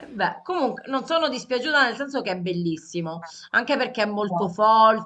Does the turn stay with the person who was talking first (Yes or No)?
Yes